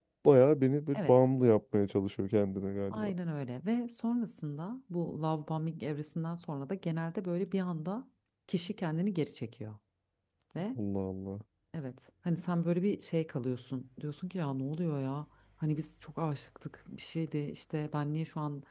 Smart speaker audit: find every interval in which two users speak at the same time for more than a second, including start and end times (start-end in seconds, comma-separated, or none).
none